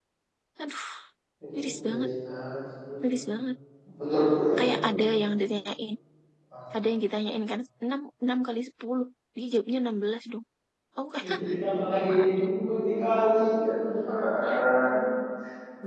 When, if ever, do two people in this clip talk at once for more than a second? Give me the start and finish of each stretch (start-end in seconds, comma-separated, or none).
none